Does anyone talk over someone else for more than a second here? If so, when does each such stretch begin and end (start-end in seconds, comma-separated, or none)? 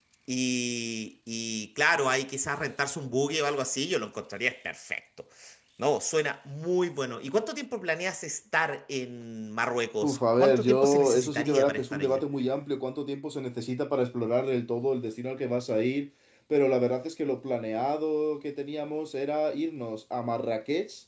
10.0-12.2